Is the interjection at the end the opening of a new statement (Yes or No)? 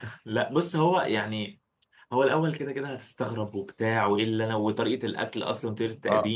Yes